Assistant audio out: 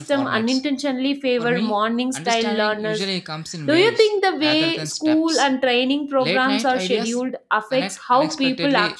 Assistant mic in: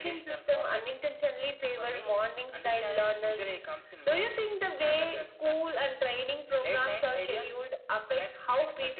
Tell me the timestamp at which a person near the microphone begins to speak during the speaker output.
none

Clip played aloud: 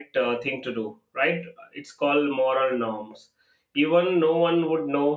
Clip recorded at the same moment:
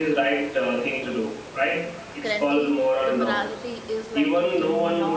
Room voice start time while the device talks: 2.2 s

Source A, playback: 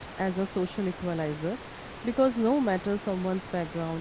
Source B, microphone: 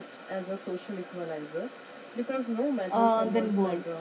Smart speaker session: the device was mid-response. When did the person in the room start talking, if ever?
2.9 s

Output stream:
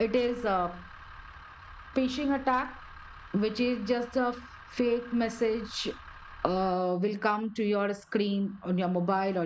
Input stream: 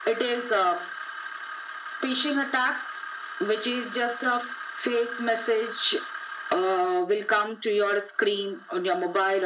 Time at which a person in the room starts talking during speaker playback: none

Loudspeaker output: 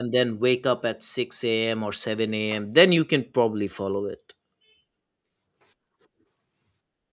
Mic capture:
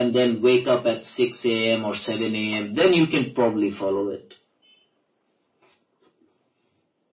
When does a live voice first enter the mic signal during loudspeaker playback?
none

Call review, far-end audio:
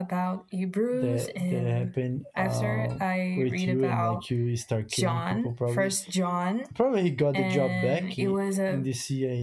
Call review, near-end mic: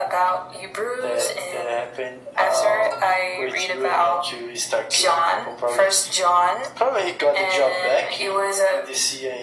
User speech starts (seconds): none

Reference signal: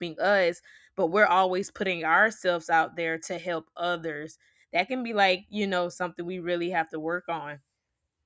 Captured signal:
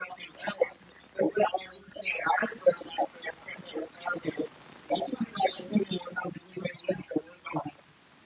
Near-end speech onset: none

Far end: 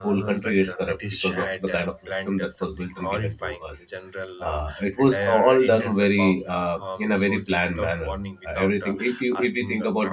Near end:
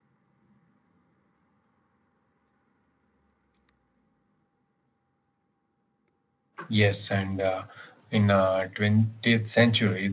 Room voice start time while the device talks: 6.7 s

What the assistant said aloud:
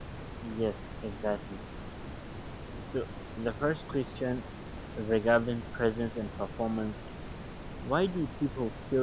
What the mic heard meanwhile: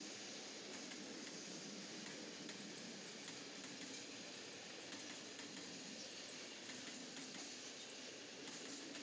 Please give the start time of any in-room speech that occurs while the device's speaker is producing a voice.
none

